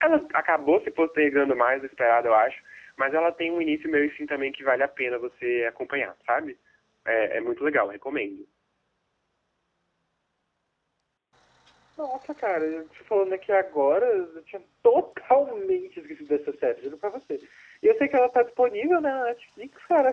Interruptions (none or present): none